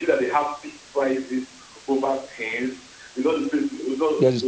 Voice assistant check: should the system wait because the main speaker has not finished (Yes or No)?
Yes